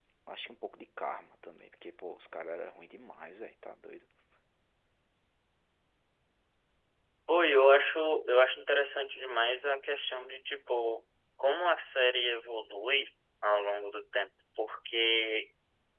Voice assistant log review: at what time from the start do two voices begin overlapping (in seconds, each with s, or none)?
none